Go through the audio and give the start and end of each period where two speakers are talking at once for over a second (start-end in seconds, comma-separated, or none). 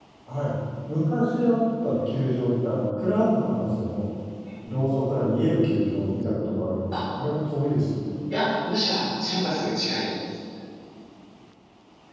none